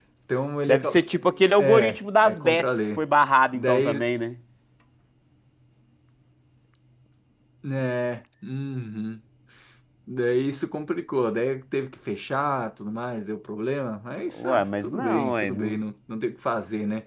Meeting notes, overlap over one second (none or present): present